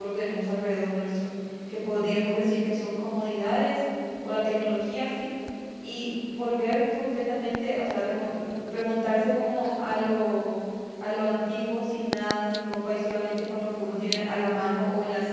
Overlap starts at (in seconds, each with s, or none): none